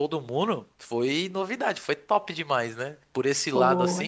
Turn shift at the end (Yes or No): No